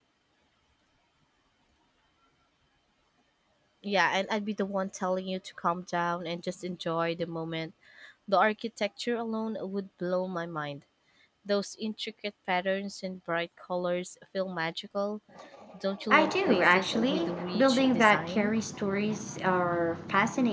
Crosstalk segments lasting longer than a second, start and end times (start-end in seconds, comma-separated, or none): 16.1-18.5